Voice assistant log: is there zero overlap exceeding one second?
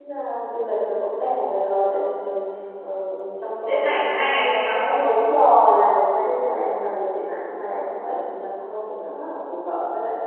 No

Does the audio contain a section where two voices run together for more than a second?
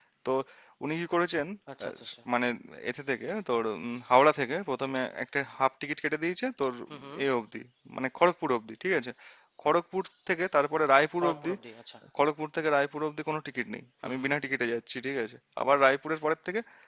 No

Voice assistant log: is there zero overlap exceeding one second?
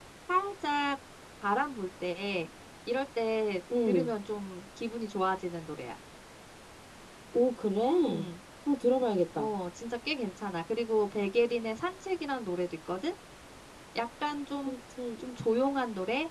Yes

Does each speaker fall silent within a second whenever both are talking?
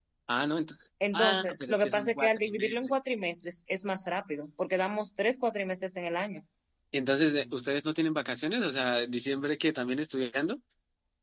No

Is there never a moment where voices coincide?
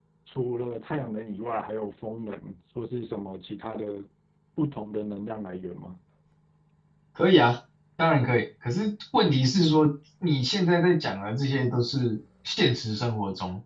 Yes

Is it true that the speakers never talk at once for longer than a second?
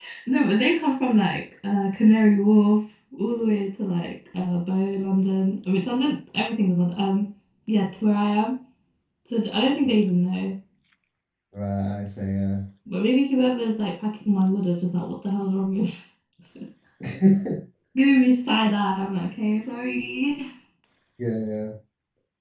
Yes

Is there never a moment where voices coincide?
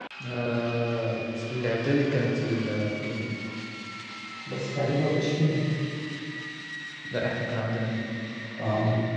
Yes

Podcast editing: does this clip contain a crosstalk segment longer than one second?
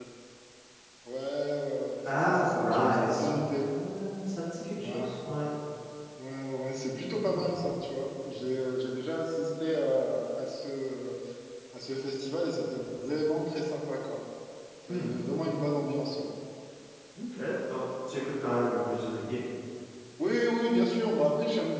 Yes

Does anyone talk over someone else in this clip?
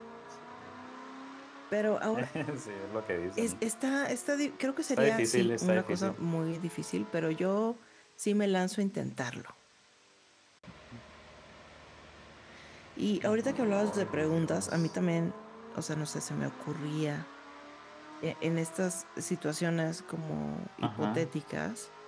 Yes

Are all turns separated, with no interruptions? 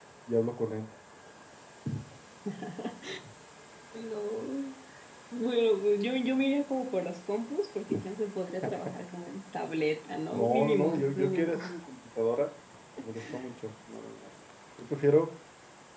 No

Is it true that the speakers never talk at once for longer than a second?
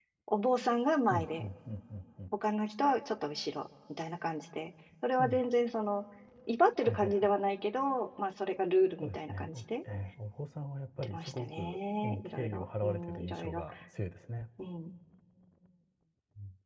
No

